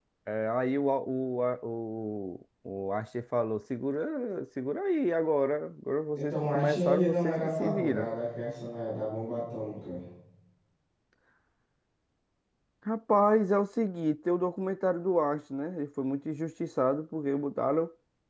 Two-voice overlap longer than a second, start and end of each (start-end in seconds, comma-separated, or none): 6.2-8.1